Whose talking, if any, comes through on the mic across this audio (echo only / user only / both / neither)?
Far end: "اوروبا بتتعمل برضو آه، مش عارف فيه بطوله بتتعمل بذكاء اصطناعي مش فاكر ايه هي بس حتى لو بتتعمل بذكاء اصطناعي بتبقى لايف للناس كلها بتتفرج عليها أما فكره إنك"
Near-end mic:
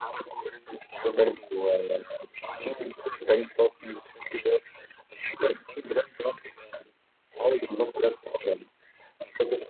echo only